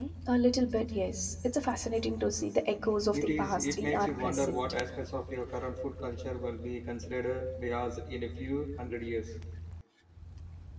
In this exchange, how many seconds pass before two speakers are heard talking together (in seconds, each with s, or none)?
3.1 s